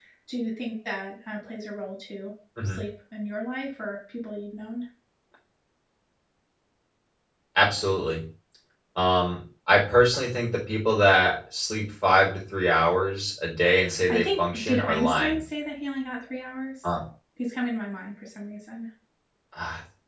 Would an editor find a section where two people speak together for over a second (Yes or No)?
Yes